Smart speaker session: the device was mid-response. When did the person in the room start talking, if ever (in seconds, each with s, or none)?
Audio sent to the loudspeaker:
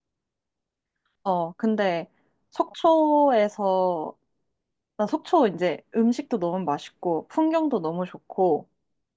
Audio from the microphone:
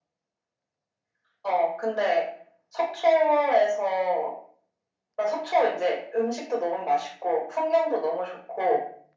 none